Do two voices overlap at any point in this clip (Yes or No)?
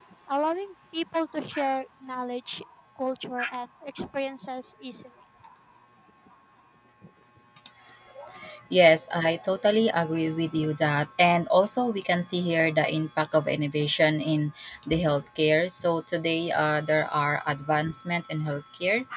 No